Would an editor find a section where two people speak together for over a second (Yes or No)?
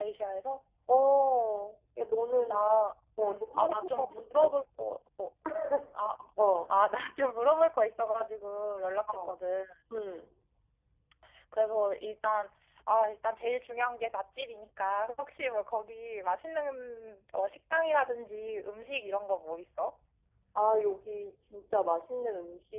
Yes